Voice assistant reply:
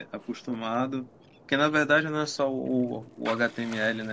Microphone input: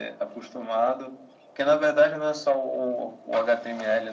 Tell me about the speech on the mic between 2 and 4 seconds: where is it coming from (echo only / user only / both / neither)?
echo only